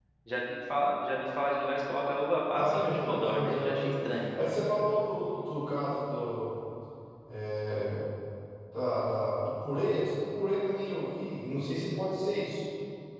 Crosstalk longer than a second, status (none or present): present